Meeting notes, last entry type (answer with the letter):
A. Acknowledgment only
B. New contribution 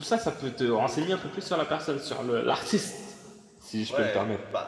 B